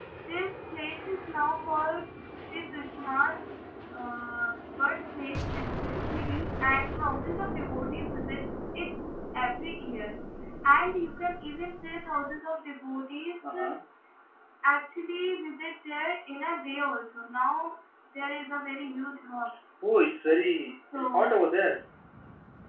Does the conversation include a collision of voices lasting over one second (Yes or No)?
No